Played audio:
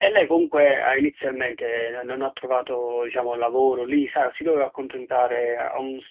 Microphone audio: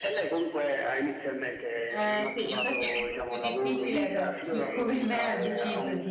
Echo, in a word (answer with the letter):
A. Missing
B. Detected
B